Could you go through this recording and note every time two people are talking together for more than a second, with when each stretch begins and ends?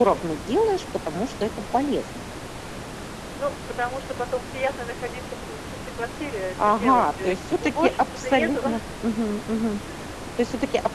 6.6-8.6

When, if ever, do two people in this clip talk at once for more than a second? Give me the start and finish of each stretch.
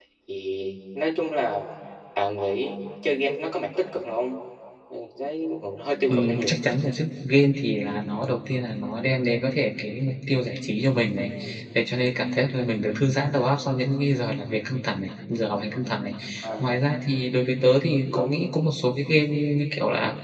none

